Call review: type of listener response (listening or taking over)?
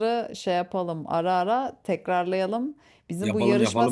listening